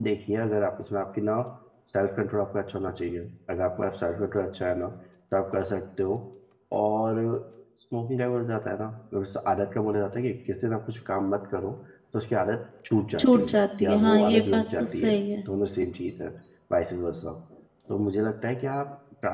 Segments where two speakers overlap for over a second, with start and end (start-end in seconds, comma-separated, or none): 13.2-15.2